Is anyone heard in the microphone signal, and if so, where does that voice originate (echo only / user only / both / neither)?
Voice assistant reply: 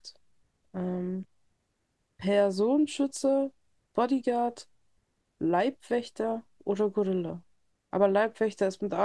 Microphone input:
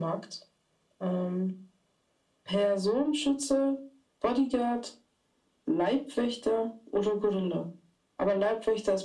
echo only